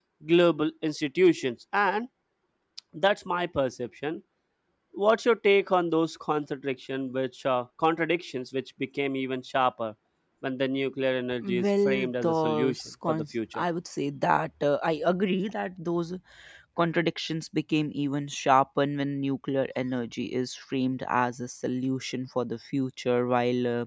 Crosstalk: present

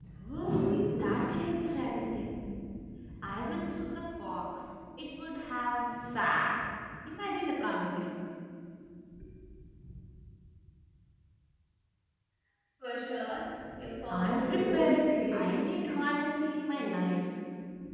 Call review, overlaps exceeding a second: present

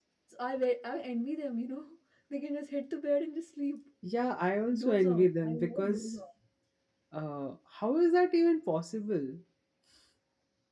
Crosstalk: present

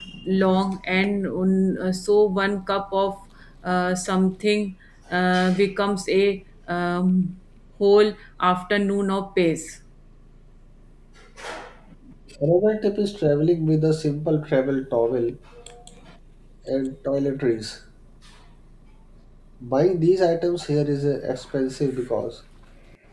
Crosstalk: none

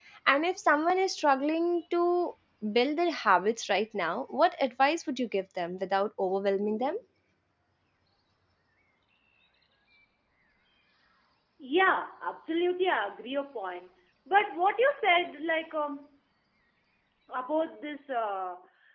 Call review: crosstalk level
none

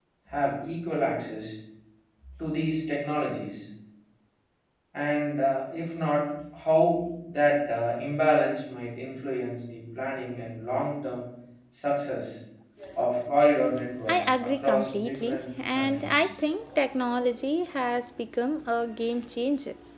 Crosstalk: present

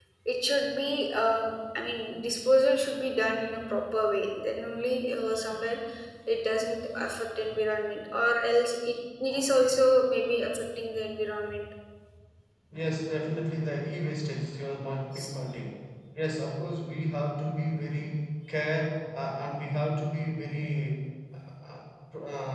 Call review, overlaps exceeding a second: none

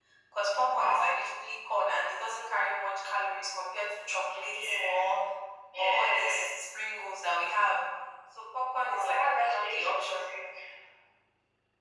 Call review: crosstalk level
present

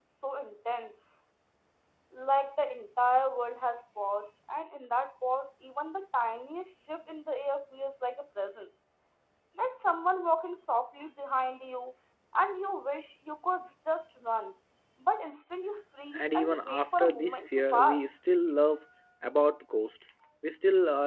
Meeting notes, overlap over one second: present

